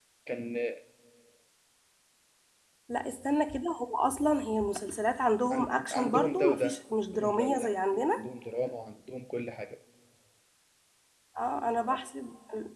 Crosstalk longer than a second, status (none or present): present